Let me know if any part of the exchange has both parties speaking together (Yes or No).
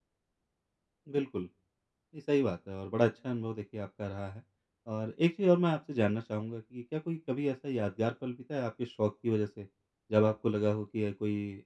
No